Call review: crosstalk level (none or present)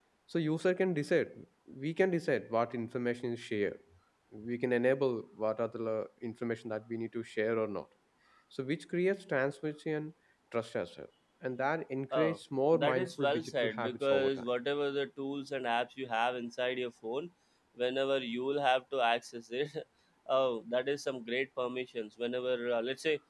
present